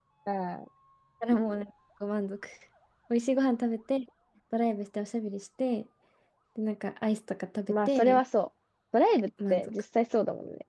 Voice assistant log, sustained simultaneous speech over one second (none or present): none